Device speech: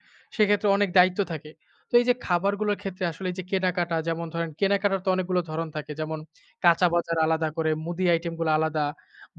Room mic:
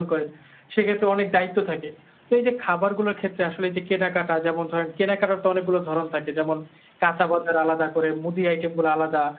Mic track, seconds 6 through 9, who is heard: echo only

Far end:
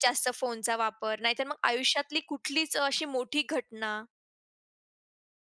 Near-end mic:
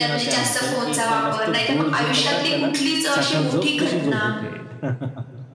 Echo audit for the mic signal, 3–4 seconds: both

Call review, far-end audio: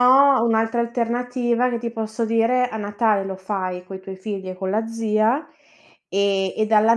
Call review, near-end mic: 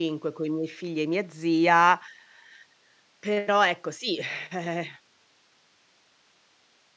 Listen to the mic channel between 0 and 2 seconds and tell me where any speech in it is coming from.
user only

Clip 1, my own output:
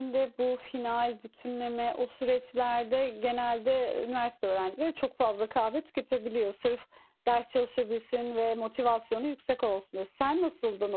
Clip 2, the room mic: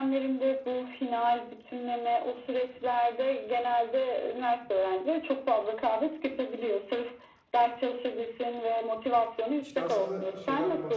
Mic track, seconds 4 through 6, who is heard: echo only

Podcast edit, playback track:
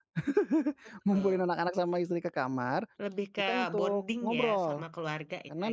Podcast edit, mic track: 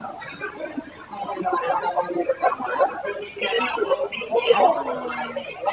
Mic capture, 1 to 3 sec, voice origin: echo only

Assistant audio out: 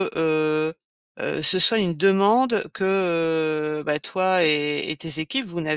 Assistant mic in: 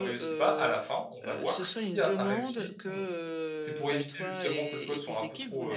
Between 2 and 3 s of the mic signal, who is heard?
both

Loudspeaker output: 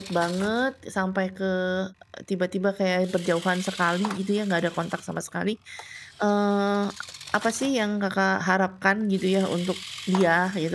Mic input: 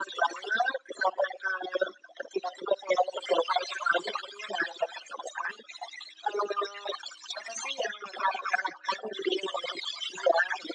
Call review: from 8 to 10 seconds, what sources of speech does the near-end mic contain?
echo only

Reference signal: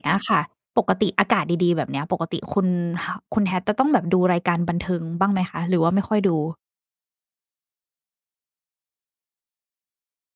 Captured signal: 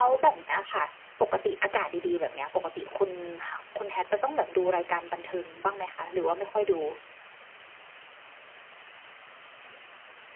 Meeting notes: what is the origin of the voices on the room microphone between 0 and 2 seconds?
echo only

